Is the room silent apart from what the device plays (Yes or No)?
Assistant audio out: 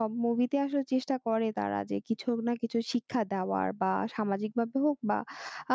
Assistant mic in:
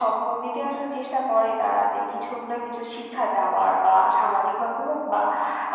Yes